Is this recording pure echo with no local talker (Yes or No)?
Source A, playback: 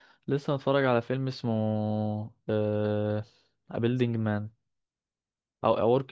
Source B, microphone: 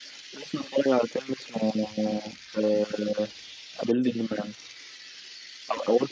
Yes